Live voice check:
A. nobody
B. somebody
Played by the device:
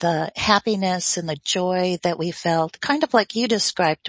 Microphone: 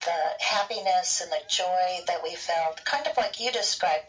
A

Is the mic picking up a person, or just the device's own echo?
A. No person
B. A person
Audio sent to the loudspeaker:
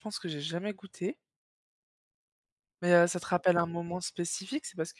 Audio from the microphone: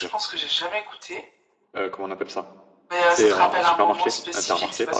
B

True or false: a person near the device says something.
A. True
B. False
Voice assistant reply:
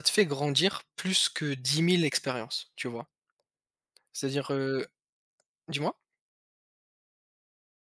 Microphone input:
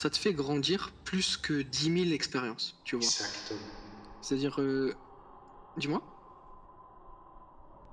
A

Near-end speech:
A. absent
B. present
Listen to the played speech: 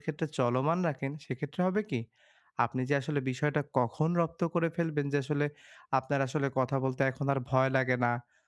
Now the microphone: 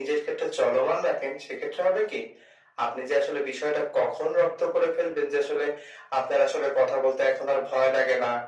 A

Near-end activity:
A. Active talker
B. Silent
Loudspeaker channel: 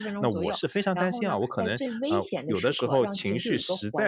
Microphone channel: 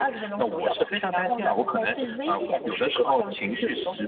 B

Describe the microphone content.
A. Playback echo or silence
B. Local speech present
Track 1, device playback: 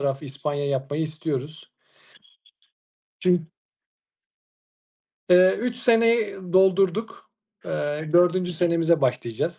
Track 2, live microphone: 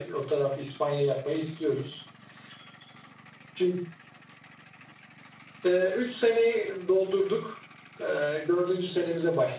A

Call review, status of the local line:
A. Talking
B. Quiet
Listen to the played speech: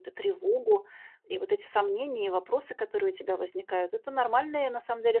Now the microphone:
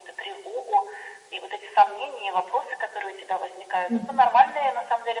A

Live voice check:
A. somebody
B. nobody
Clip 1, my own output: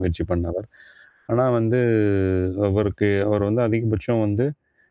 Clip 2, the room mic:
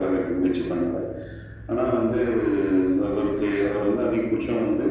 B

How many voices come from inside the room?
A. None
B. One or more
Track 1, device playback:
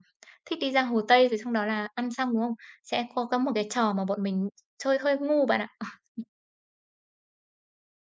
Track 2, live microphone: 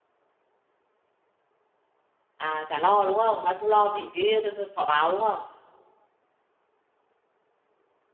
B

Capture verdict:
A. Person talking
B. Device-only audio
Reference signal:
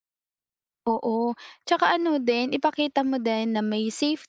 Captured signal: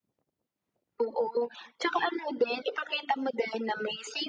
B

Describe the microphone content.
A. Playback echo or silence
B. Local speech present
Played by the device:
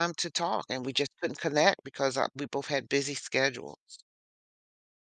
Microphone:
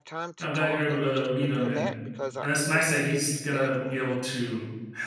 B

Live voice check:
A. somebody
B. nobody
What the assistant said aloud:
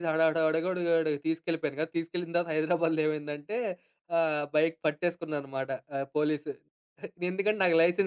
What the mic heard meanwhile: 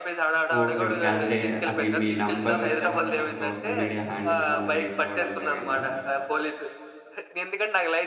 A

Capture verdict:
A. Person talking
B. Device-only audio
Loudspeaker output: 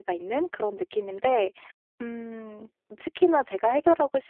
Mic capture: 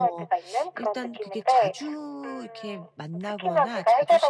A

